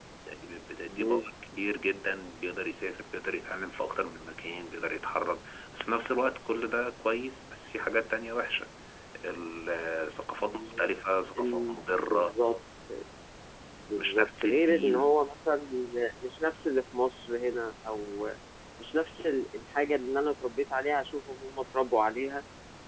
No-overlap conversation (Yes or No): No